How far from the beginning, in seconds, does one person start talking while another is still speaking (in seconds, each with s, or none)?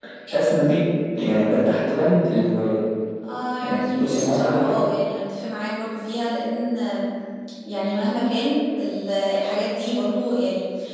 3.6 s